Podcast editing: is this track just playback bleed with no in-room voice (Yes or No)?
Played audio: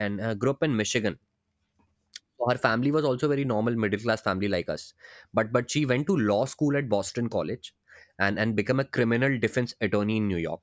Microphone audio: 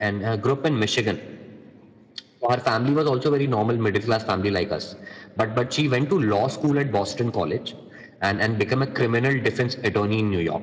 Yes